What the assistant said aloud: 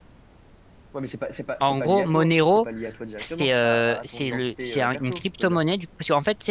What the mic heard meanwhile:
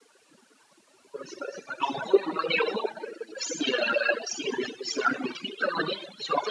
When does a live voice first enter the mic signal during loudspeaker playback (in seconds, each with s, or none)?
none